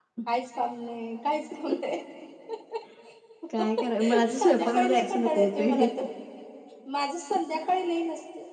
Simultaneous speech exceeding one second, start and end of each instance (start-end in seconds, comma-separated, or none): 4.3-5.8